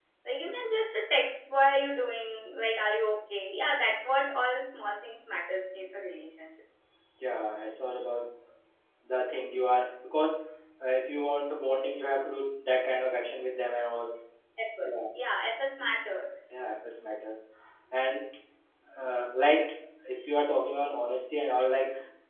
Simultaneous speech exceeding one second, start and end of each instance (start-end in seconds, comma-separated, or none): none